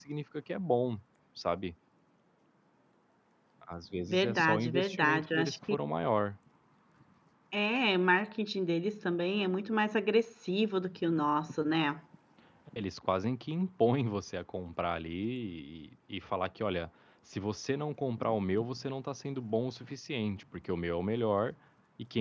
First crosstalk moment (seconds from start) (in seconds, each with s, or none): 4.1 s